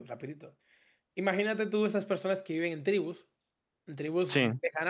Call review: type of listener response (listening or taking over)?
listening